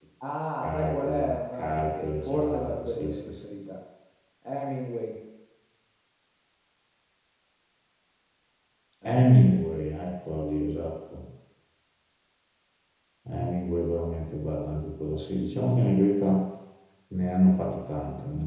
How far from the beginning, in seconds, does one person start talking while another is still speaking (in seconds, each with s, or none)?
0.6 s